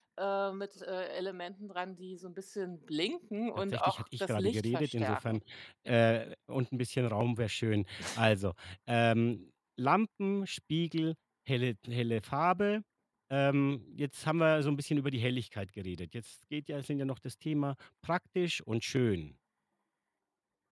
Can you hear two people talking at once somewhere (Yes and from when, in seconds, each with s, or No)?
Yes, from 3.7 s